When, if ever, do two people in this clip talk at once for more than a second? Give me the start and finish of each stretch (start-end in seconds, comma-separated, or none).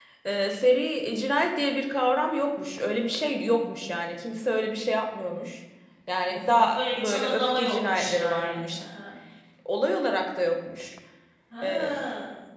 6.2-8.8